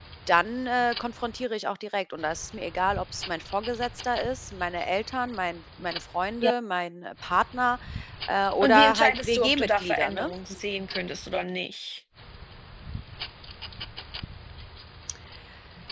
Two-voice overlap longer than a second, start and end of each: 8.6-10.3

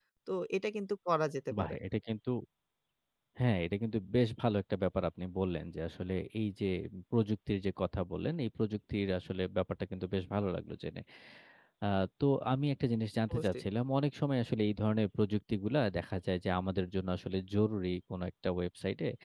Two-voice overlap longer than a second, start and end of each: none

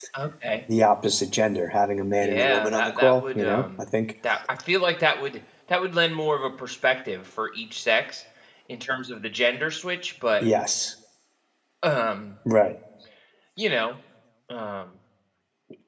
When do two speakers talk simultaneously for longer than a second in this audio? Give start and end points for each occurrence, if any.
2.2-3.6

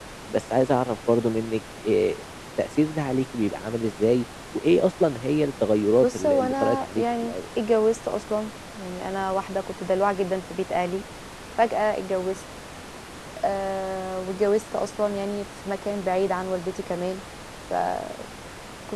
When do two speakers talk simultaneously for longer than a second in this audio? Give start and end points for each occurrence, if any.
6.0-7.3

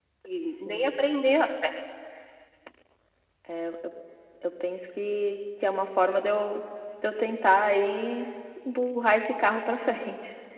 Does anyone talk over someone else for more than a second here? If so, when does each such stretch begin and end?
none

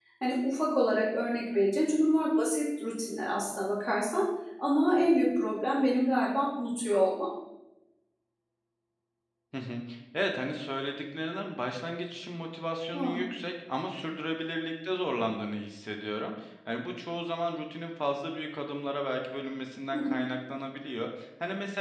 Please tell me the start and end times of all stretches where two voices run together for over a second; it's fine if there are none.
none

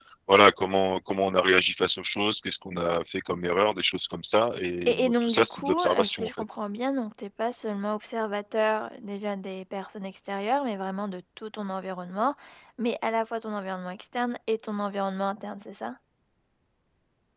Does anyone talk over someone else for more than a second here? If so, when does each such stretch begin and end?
4.9-6.3

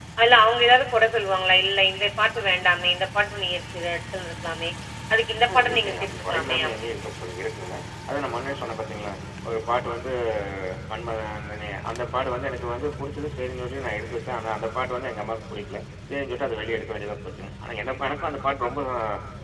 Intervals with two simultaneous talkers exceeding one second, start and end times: 5.5-7.0

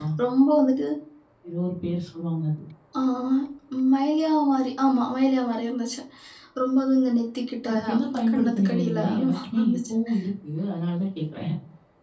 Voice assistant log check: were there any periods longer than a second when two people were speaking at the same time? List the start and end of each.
8.3-9.9

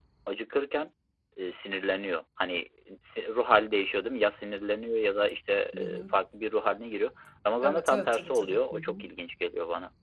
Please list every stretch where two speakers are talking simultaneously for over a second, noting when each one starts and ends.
7.6-9.1

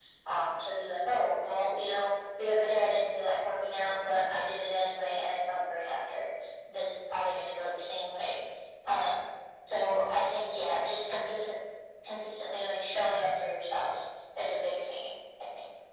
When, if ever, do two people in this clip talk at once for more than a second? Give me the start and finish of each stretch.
none

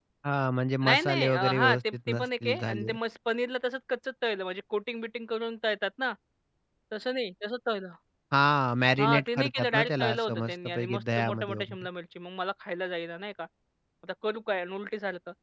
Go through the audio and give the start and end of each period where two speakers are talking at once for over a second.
0.8-3.0, 9.0-11.9

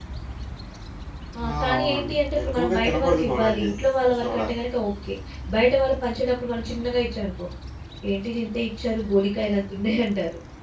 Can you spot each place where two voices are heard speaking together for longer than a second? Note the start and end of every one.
1.5-3.7

